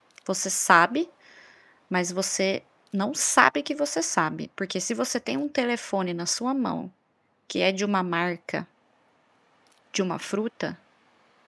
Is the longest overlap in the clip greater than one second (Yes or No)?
No